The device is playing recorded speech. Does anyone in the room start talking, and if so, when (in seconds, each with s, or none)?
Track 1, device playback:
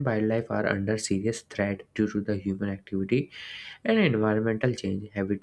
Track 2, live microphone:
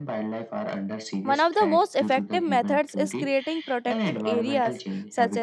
1.2 s